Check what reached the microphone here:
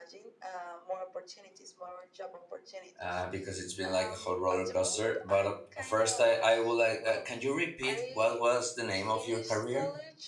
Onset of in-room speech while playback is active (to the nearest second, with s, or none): 3 s